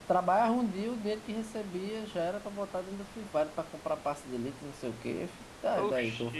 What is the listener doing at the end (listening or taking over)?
taking over